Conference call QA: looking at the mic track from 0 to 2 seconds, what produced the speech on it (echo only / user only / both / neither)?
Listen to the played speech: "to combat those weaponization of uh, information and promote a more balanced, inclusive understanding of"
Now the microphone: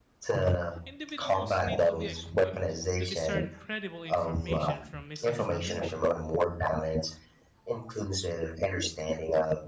both